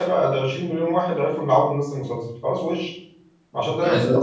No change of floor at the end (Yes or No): Yes